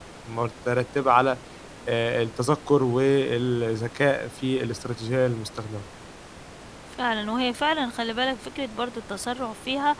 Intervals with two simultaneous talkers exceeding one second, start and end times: none

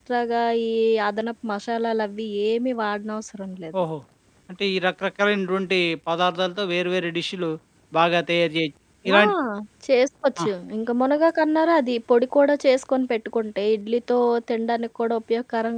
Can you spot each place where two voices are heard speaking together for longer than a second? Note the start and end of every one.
none

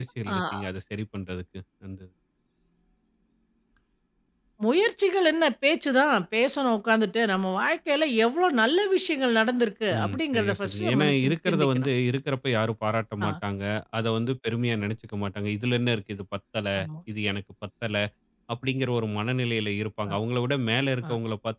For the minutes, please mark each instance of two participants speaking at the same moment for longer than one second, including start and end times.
10.0-11.9

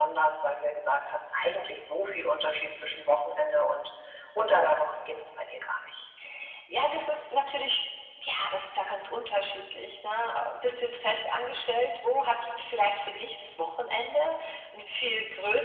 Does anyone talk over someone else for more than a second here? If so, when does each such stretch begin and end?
none

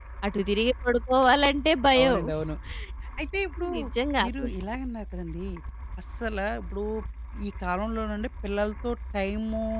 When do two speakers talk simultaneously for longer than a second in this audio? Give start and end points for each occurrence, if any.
none

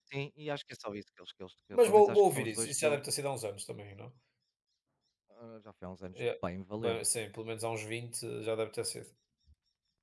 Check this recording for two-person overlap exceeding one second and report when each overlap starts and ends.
1.8-3.0

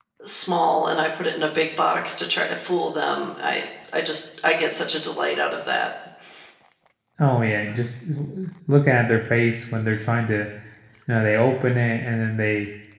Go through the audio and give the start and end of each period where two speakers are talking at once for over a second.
none

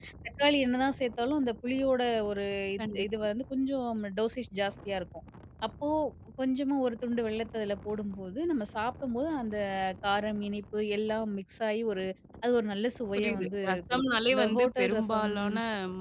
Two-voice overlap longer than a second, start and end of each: 13.2-15.3

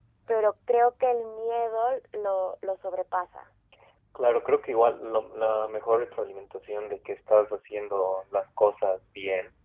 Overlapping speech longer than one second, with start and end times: none

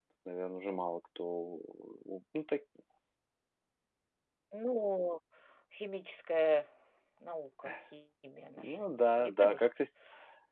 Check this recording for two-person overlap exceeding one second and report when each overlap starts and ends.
8.6-9.8

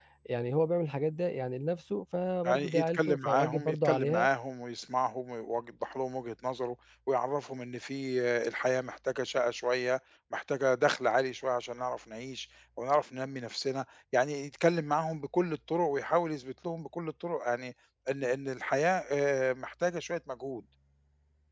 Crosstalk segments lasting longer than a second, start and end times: 2.4-4.3

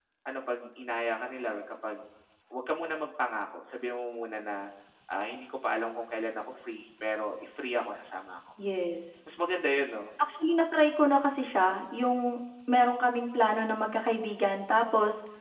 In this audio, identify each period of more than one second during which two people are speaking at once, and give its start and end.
none

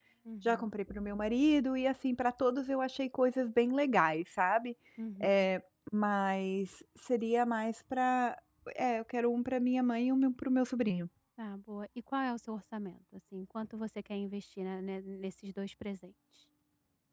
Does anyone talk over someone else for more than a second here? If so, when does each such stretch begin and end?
none

